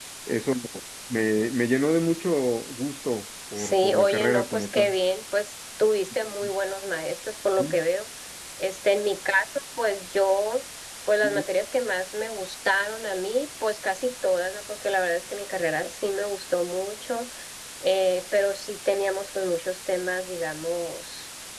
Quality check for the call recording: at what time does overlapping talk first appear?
3.6 s

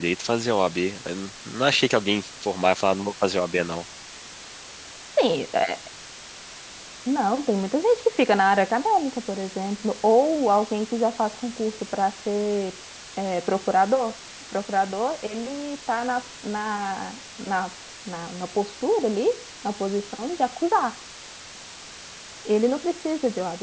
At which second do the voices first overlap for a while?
none

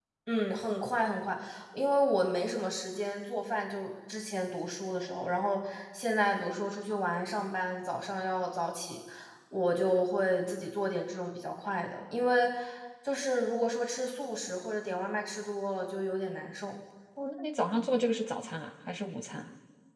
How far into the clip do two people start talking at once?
none

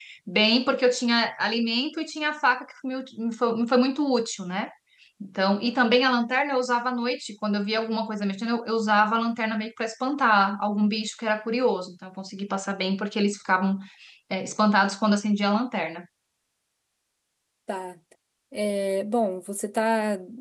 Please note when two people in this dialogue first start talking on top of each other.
none

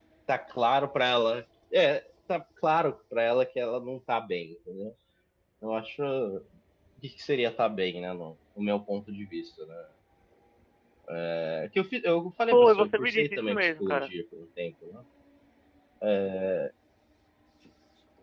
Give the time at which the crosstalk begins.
12.5 s

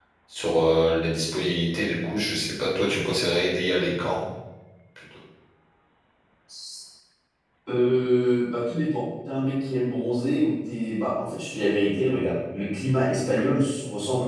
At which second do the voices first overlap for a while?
none

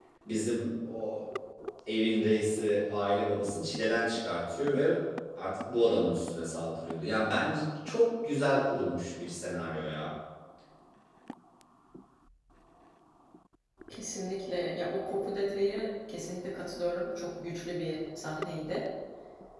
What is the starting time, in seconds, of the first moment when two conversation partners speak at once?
none

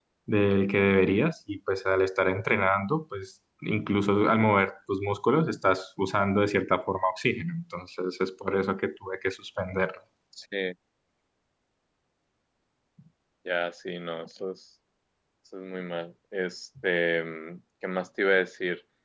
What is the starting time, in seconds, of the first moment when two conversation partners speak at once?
none

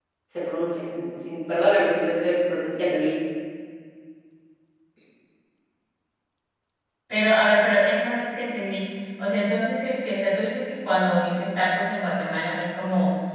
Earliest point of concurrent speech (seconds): none

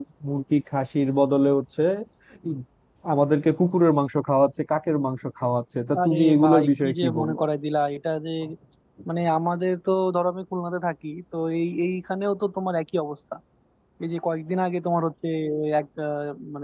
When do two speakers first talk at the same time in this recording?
5.9 s

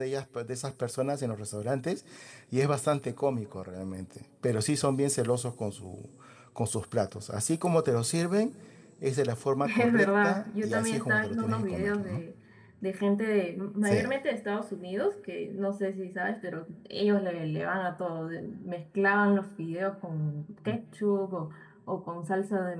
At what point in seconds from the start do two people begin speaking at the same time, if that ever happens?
9.6 s

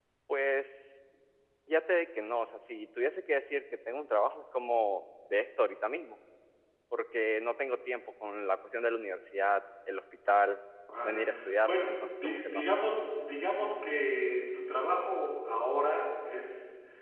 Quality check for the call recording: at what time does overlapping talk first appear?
10.9 s

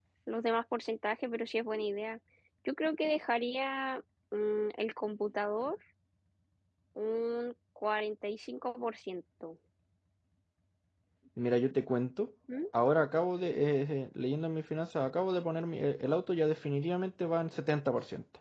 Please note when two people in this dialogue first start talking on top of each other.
none

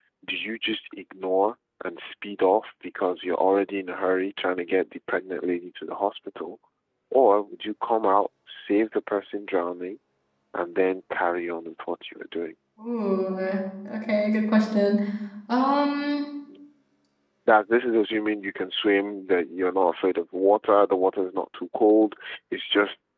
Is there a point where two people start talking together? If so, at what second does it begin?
none

